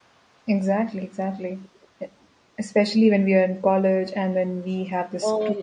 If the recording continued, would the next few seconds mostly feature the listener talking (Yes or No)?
No